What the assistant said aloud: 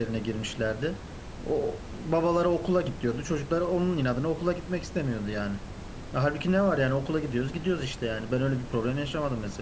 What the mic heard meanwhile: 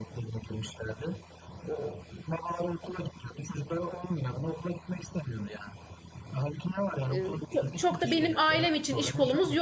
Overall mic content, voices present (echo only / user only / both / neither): both